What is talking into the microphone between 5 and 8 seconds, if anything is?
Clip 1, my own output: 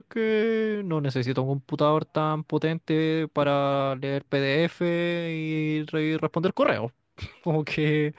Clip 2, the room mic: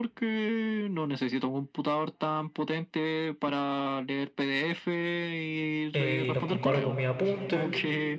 both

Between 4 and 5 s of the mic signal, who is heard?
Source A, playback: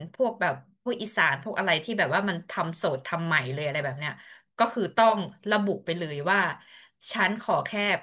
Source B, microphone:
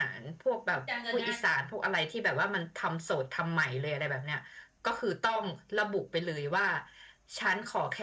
echo only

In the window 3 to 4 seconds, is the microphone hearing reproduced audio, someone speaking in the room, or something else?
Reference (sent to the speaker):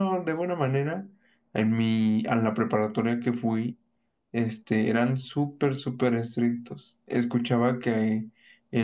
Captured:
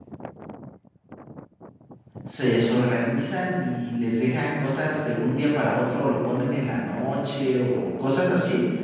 user only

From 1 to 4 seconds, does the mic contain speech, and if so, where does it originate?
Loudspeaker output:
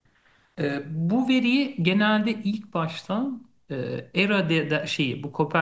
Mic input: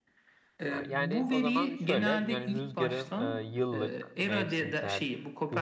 both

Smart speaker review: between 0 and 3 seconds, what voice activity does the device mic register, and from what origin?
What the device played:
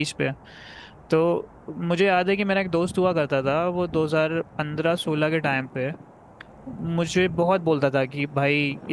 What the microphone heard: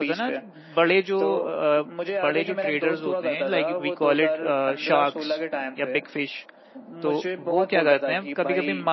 both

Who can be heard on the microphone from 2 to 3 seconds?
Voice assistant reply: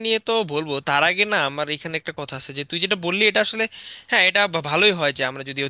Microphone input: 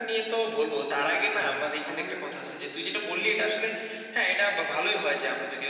both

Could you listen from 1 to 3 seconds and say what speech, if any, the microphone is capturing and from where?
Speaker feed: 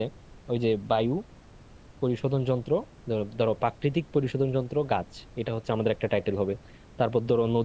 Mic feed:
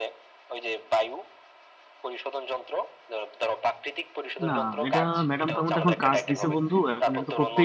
echo only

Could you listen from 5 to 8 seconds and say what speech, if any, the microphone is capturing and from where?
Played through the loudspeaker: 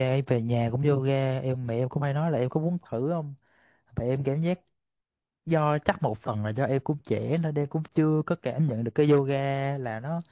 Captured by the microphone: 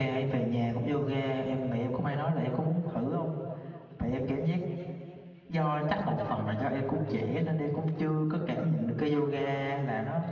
echo only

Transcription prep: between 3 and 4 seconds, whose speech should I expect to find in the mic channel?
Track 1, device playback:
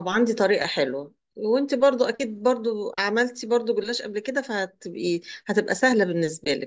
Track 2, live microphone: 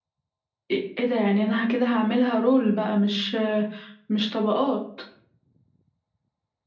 user only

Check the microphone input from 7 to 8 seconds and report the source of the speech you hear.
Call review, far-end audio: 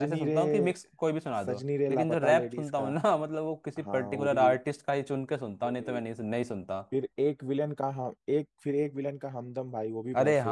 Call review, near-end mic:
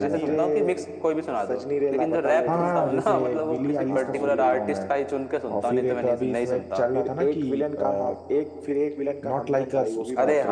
both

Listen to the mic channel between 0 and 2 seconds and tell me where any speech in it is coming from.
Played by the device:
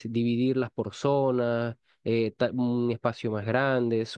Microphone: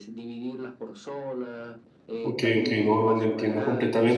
echo only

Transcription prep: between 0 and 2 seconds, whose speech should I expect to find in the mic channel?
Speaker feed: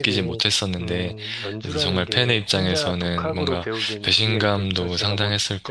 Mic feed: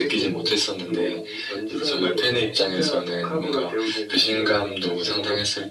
echo only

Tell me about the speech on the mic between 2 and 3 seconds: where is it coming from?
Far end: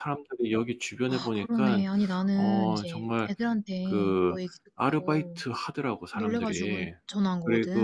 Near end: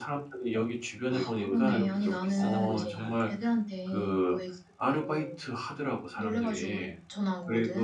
both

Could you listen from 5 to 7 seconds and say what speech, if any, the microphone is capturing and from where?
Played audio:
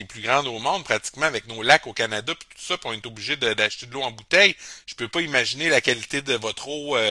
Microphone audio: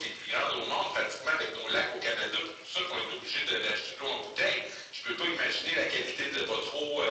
echo only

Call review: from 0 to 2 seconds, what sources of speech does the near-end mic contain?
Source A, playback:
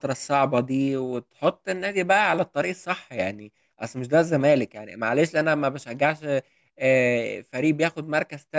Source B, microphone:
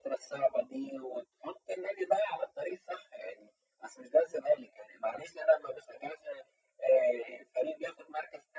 echo only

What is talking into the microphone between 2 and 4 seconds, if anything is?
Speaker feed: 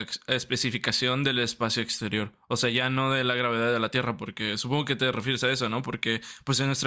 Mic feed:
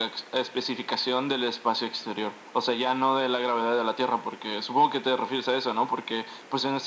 echo only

